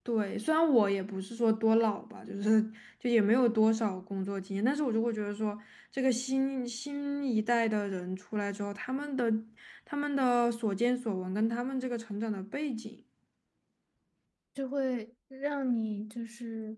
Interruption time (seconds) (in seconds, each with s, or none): none